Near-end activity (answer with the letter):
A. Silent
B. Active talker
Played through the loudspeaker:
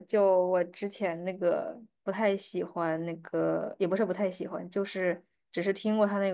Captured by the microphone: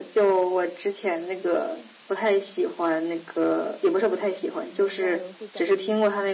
B